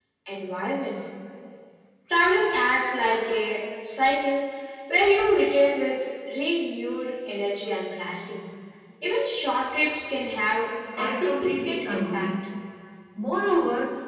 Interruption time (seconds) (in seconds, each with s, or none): 11.0 s